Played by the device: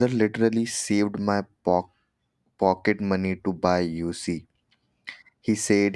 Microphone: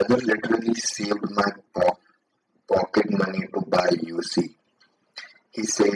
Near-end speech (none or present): none